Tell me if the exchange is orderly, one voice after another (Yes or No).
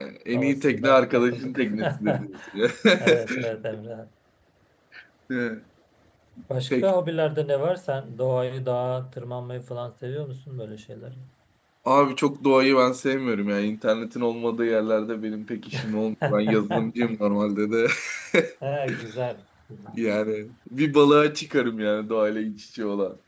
No